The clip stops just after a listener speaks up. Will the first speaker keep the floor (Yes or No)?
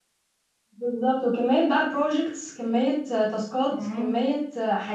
Yes